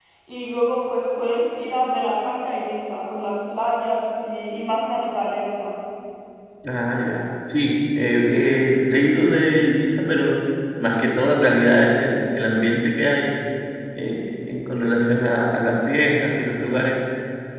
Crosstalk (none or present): none